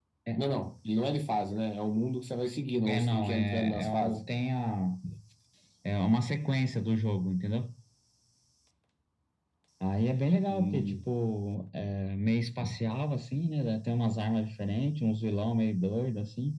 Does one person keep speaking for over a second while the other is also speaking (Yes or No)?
Yes